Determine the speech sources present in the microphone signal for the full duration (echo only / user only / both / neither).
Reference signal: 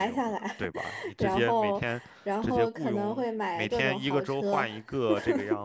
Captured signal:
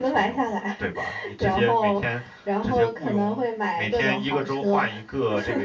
echo only